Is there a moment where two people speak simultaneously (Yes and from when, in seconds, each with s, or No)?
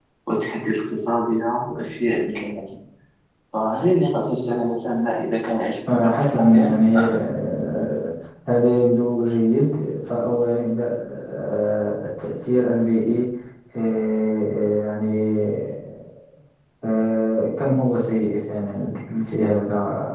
Yes, from 5.9 s